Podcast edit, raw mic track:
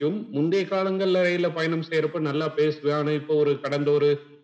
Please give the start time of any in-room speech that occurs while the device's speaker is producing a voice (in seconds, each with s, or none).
none